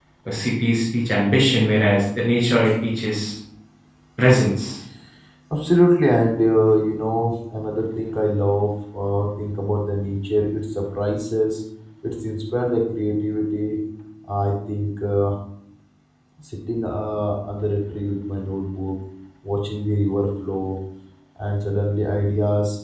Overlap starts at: none

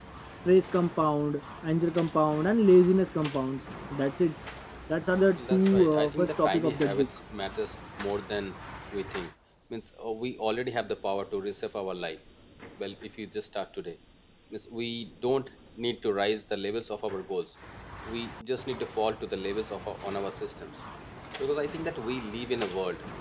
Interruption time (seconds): 5.3 s

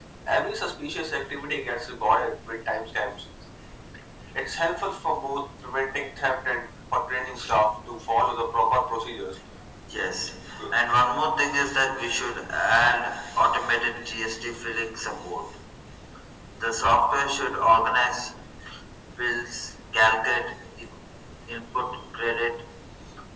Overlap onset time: none

